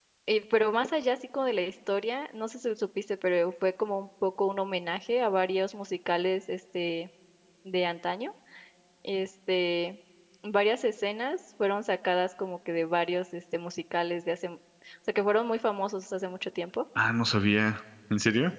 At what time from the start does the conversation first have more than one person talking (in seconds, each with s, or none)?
none